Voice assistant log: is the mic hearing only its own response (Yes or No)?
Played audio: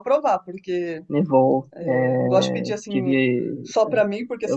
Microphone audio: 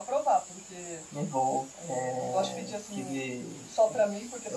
Yes